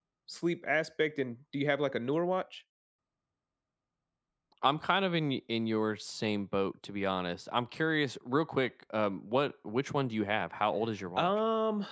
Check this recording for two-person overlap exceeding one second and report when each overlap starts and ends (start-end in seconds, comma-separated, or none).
none